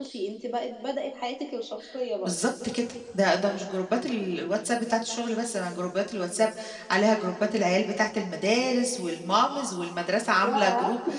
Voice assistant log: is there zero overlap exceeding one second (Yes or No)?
Yes